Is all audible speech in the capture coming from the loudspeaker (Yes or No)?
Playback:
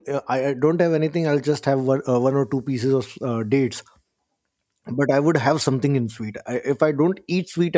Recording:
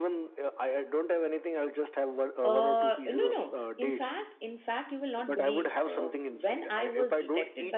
No